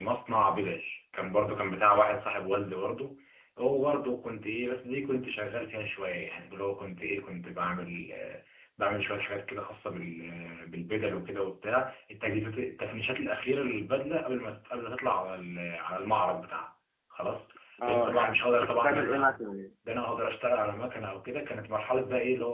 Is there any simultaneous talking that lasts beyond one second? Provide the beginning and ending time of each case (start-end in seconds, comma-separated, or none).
17.9-19.4